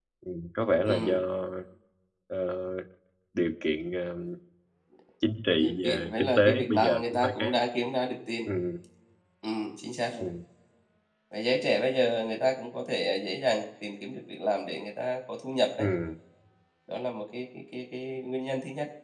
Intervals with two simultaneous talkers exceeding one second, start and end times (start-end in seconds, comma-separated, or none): 5.6-7.5